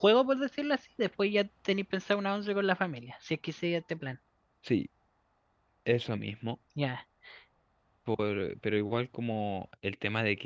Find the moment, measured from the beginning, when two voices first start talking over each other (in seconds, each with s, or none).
none